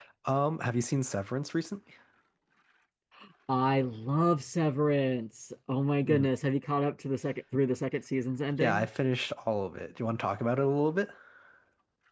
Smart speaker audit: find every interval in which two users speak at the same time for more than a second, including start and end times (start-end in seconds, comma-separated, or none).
none